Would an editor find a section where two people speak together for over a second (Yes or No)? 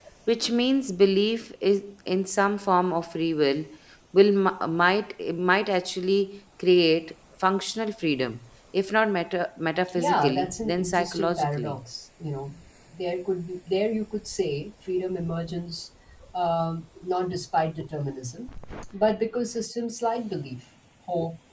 Yes